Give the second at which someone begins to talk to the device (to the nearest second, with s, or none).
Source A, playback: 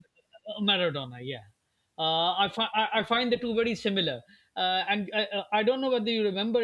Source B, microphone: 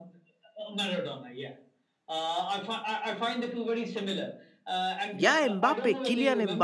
5 s